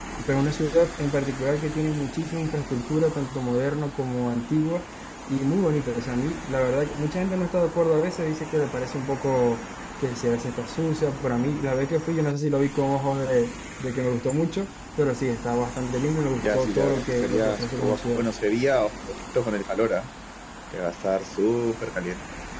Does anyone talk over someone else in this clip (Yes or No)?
Yes